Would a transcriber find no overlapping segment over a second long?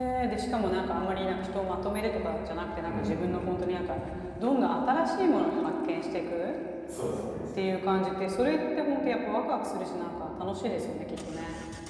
Yes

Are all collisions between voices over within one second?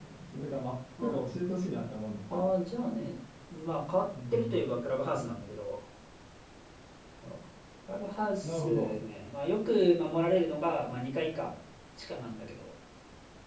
Yes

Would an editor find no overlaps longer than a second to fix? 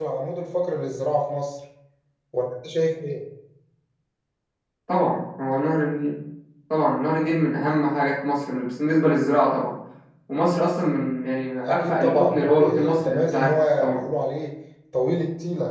No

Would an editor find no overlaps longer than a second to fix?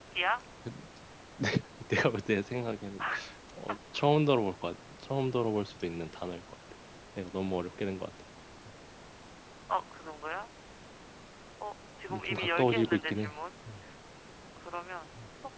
No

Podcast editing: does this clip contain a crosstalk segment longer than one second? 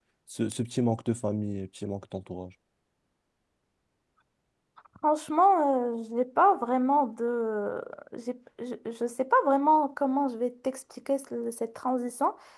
No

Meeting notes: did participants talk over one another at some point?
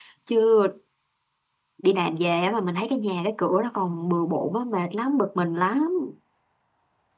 No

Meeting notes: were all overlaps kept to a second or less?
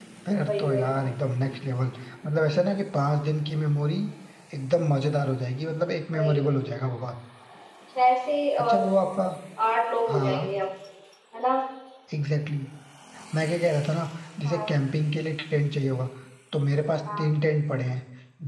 Yes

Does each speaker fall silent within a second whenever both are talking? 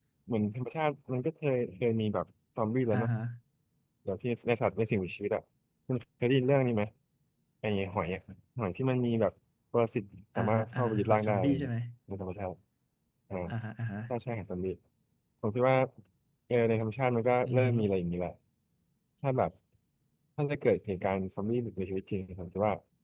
No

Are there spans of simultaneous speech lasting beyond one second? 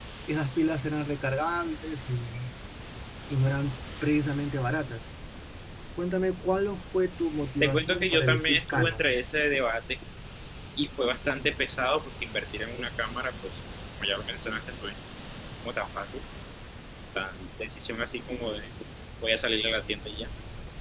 Yes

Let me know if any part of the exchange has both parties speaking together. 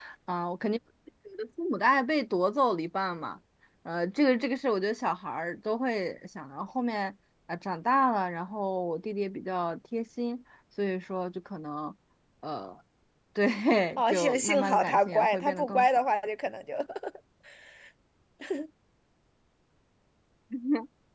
Yes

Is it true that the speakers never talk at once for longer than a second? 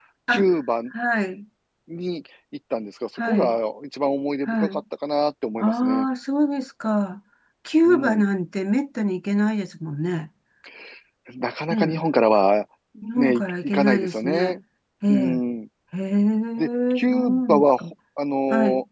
No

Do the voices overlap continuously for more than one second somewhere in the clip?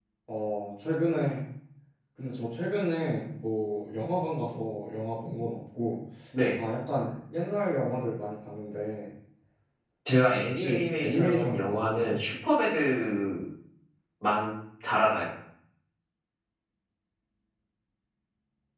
Yes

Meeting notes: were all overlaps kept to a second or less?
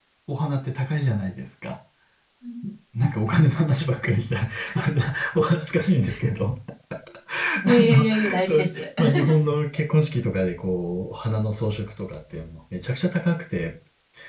No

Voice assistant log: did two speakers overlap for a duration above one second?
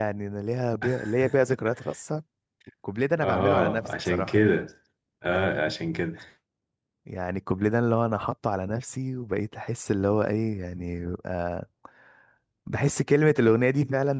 Yes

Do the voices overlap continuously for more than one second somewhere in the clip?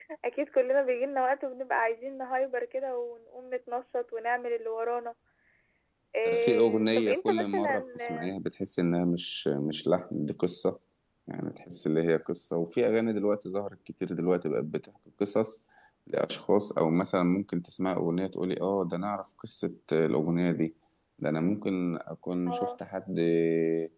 Yes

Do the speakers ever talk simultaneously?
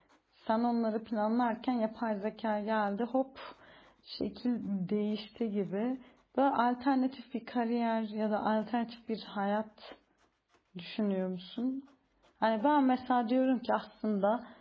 No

